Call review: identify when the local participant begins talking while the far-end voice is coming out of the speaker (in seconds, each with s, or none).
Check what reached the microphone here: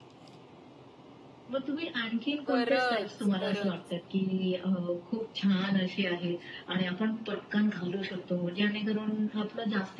2.5 s